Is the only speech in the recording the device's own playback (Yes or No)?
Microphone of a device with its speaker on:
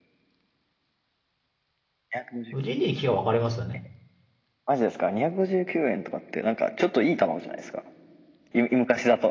No